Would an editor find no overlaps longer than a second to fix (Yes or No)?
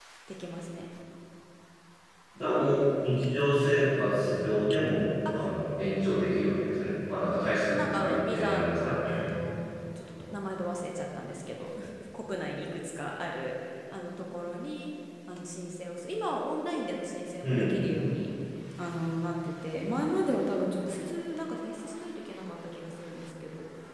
No